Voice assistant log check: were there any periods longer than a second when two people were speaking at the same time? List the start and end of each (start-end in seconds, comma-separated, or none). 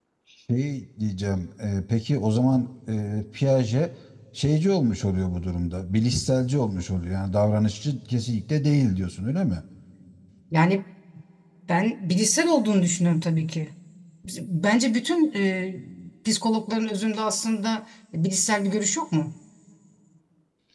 none